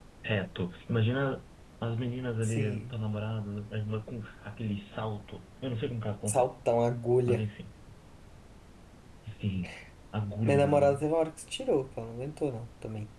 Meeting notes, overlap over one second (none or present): none